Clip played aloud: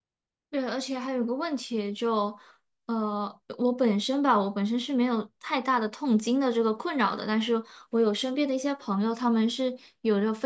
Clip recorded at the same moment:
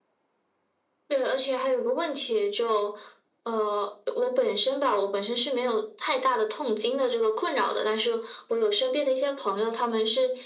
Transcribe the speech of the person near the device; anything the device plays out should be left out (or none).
none